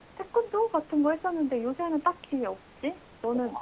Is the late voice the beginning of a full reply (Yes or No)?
Yes